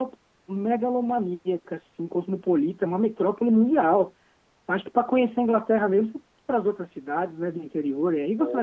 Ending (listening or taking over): taking over